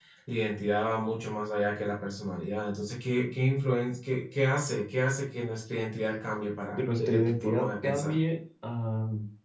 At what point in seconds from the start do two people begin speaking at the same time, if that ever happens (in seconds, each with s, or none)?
6.8 s